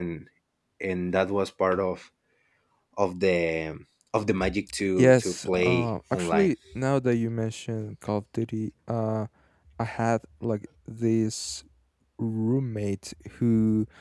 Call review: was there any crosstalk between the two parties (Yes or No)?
Yes